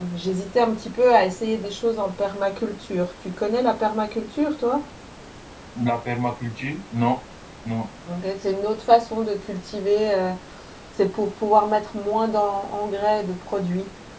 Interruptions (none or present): none